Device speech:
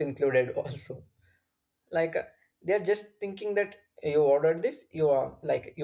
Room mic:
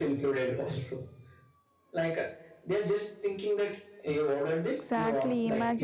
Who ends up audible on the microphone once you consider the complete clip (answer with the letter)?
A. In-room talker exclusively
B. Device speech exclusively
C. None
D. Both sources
D